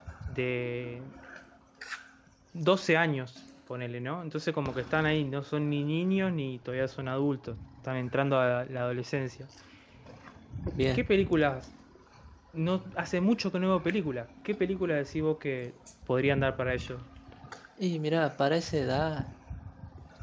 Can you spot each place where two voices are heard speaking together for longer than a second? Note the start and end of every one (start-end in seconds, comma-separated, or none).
none